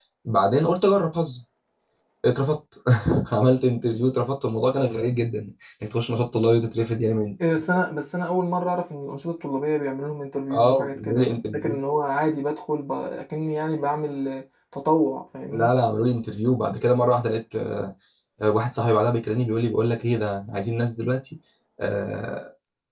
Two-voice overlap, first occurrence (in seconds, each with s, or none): 10.5 s